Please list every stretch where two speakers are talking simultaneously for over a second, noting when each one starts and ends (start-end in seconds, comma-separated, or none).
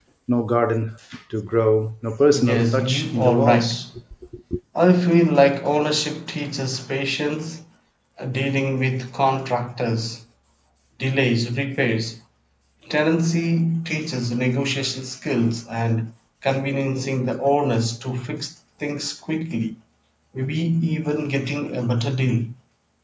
2.3-3.8